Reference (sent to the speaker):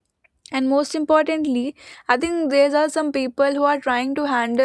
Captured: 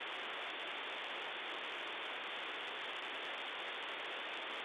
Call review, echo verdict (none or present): none